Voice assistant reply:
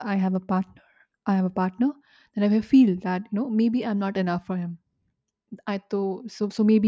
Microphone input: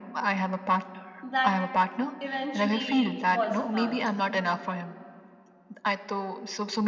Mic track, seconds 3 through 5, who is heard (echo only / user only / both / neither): both